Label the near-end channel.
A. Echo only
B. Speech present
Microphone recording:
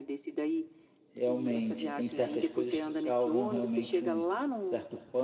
B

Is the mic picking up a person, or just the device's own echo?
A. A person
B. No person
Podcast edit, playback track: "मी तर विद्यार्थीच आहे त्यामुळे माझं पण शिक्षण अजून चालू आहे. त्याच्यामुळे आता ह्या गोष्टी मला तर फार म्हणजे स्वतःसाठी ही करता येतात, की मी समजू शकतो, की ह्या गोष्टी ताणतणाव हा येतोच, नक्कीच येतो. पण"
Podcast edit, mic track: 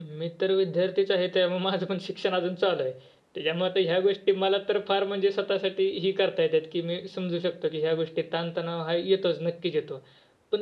B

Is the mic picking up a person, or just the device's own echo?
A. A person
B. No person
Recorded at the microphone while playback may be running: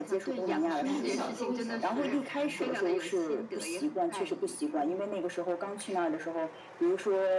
A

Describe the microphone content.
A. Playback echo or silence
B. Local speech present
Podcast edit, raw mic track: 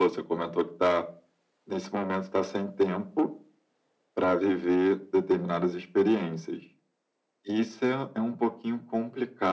A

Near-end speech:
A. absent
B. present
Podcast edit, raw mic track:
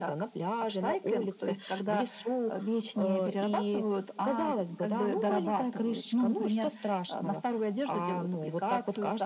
A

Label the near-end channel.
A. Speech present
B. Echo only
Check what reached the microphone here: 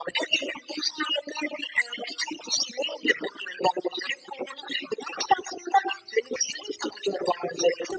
B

